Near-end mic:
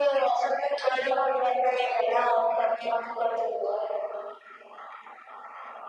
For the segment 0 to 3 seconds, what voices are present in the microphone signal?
echo only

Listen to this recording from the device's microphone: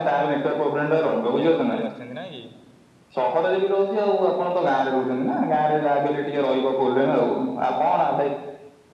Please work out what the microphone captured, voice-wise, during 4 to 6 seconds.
echo only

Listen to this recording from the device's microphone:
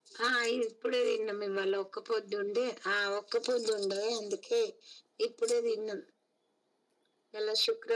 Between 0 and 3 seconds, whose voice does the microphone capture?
echo only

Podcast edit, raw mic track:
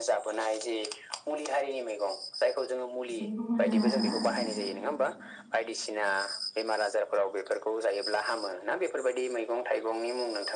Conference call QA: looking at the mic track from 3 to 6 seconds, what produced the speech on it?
both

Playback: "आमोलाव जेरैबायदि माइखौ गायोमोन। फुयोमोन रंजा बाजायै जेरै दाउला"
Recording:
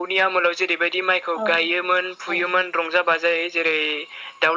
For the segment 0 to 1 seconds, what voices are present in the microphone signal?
echo only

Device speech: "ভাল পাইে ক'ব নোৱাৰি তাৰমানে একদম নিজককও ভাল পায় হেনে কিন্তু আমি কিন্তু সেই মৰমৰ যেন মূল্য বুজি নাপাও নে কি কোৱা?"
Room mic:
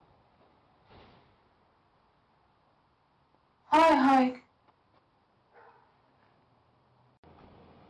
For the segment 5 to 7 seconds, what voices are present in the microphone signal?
neither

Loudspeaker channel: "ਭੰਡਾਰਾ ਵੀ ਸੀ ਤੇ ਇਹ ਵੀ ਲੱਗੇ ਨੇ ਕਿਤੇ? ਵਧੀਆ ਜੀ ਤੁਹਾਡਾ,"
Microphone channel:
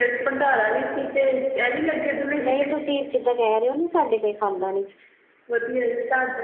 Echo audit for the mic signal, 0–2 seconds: echo only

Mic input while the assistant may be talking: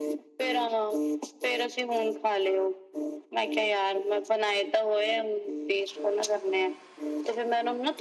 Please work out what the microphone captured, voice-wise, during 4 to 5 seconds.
echo only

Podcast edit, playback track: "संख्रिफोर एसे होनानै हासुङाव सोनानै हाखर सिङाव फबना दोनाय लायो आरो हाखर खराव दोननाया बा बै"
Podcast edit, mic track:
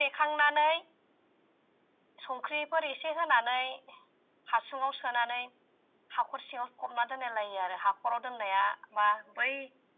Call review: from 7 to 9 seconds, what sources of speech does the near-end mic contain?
echo only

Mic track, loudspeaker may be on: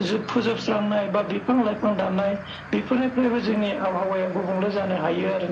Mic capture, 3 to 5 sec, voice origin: echo only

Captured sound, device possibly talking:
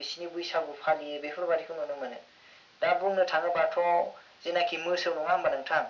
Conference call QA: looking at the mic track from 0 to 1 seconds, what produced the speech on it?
echo only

